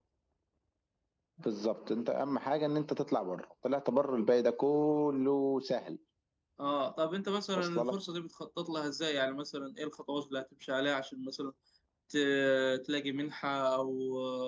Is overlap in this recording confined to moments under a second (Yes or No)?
Yes